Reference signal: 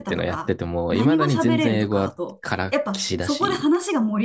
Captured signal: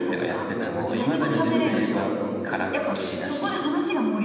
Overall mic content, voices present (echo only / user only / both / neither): both